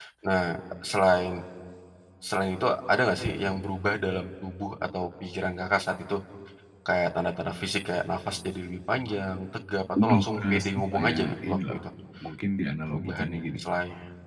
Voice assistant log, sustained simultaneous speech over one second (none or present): present